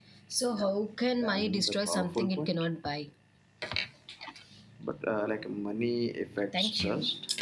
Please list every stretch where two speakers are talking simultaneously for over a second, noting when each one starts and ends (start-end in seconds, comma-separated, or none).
1.2-2.5